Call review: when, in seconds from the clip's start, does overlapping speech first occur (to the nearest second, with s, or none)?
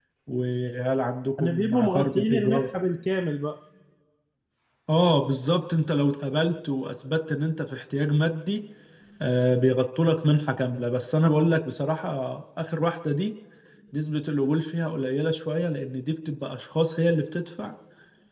1 s